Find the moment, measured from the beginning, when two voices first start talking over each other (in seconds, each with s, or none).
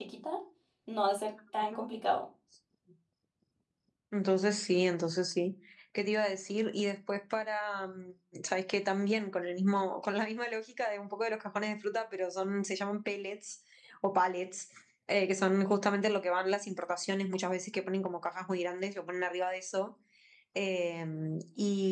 none